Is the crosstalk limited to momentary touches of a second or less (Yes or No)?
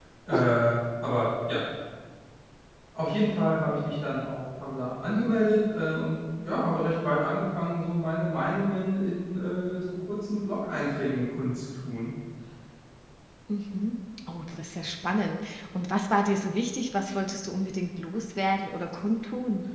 Yes